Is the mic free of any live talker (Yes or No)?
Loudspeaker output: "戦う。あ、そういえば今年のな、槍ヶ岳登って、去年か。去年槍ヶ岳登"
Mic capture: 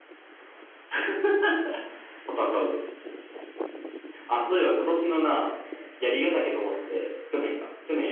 Yes